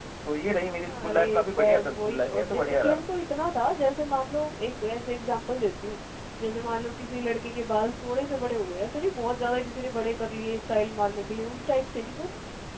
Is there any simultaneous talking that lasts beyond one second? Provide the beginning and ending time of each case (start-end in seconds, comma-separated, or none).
0.9-3.0